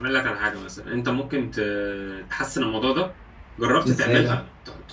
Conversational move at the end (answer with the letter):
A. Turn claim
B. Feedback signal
B